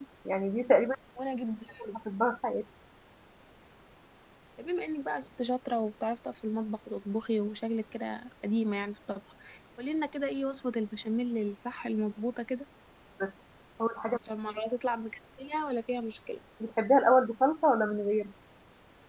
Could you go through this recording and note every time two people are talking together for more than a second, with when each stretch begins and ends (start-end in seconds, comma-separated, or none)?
none